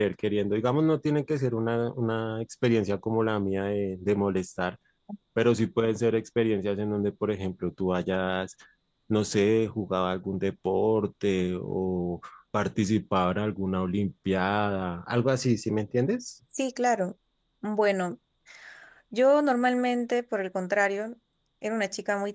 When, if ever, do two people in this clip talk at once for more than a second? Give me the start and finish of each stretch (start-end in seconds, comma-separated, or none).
none